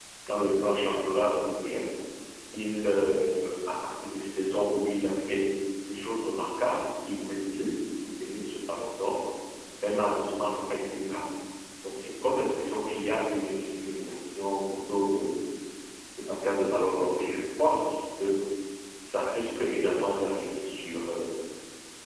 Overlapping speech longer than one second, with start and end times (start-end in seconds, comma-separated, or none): none